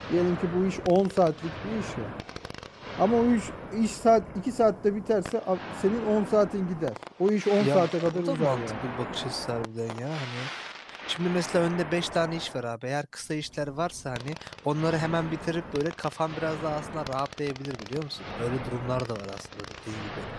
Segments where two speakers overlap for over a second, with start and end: 7.6-8.9

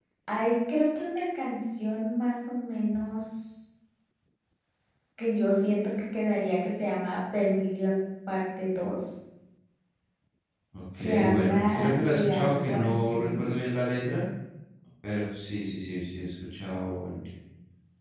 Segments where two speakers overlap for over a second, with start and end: 11.0-13.5

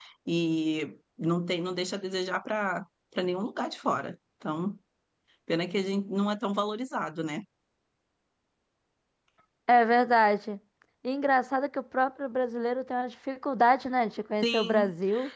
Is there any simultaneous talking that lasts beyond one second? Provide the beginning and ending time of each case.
none

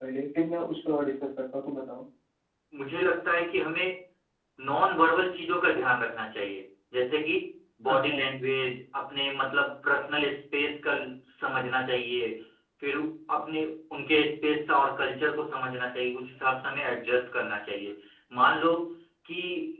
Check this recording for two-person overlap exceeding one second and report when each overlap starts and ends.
none

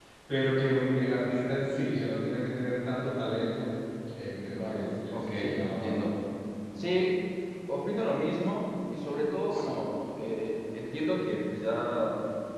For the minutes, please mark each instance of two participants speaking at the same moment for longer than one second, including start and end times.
4.5-6.0

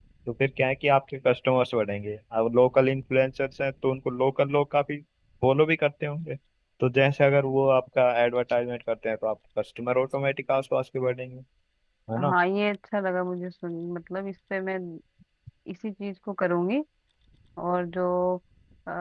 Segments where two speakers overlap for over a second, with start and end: none

